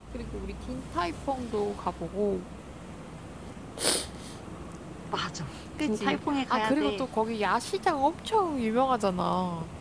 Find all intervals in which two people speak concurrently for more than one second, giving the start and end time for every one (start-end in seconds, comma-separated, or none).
5.8-7.1